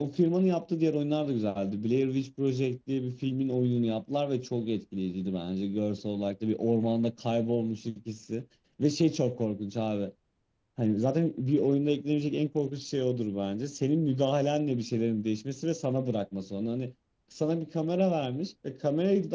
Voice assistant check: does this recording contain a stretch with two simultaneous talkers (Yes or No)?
No